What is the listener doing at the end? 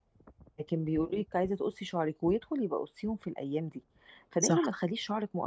listening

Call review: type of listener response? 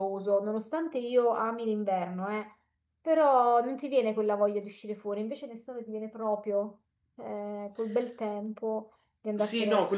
taking over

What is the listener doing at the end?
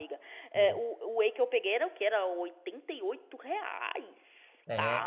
taking over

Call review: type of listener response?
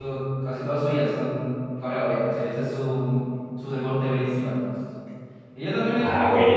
listening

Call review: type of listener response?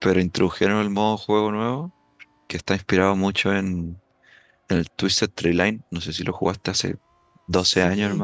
taking over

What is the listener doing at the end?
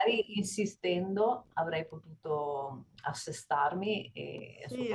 taking over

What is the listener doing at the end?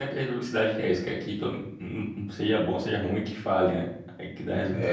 taking over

